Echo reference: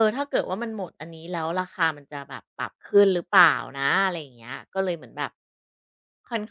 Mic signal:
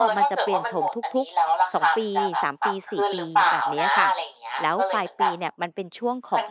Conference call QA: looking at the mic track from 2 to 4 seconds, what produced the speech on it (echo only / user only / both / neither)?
both